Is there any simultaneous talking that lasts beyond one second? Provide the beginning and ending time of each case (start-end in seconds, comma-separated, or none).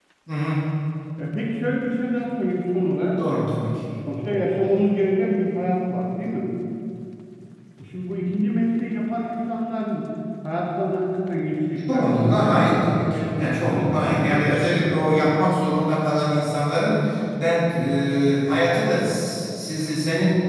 11.9-15.2